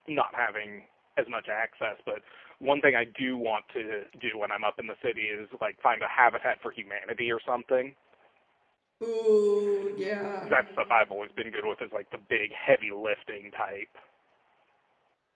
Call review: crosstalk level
none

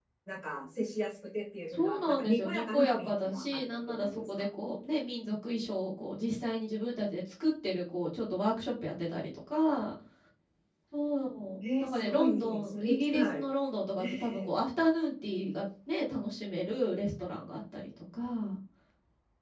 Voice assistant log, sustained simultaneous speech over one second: present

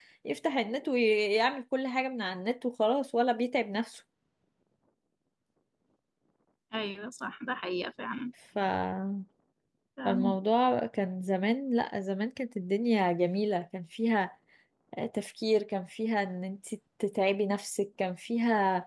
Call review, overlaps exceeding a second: none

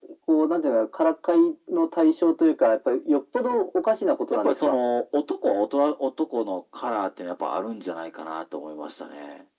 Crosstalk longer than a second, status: none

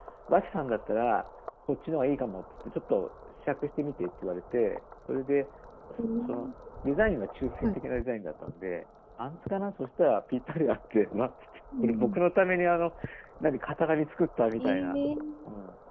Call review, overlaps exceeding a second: none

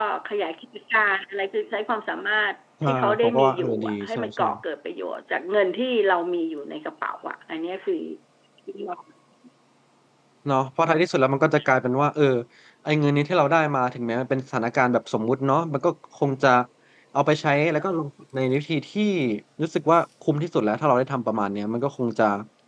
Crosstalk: present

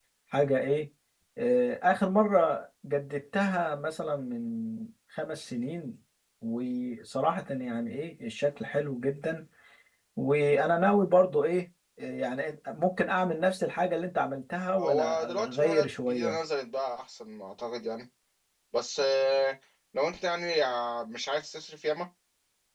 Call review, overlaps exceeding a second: present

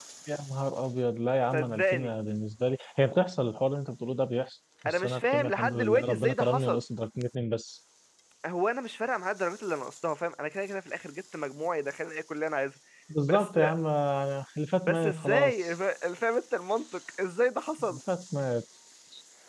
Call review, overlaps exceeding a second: present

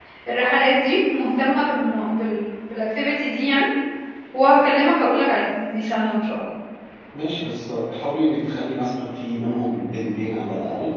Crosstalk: none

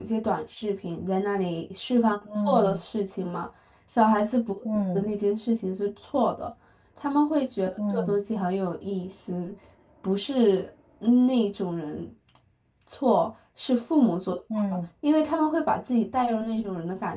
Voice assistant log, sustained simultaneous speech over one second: none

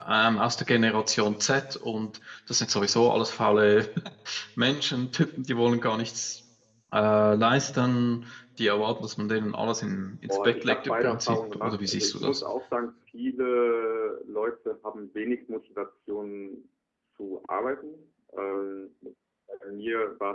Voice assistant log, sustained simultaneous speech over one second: present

